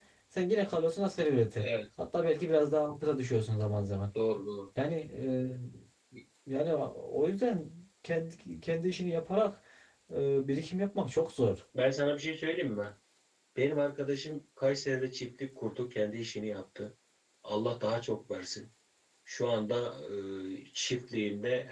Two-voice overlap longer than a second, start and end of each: none

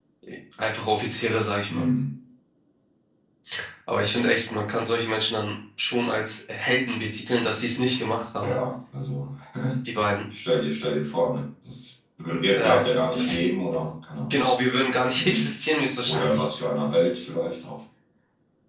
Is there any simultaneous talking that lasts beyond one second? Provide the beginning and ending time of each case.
none

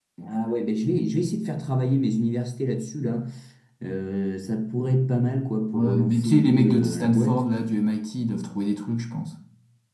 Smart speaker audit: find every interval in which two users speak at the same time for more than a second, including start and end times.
5.7-7.4

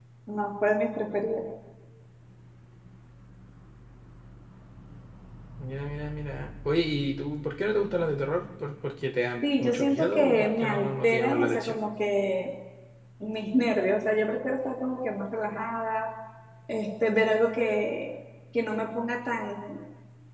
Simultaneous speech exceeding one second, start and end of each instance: 9.4-11.8

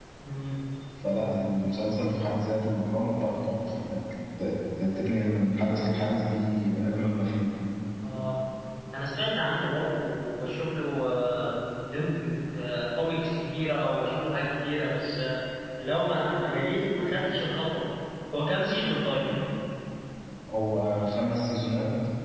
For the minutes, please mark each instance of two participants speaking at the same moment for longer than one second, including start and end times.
none

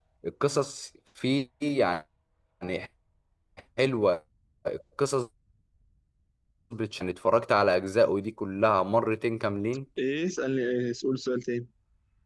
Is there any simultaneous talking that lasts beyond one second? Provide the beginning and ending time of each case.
none

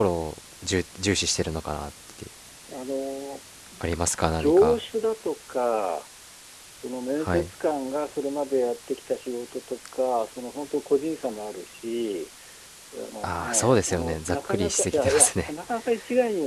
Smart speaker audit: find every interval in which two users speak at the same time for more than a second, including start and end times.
13.2-15.5

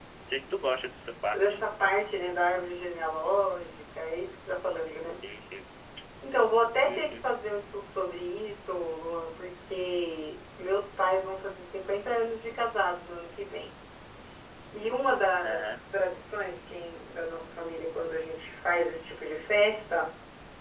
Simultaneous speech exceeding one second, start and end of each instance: none

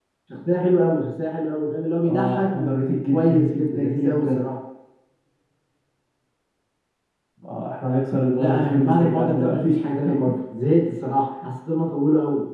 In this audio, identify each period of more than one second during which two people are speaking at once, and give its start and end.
2.1-4.4, 8.3-9.7

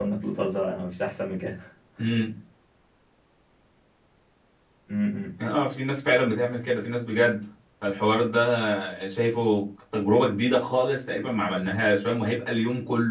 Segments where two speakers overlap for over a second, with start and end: none

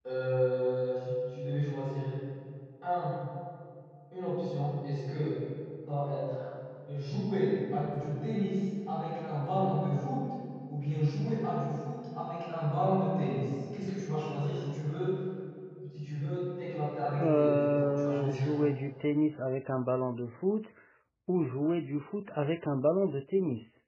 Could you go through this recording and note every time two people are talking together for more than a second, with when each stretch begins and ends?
17.2-18.6

